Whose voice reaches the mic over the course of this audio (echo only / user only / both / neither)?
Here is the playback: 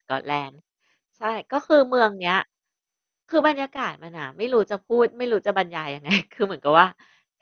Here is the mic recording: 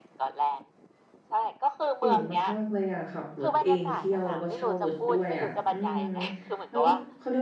both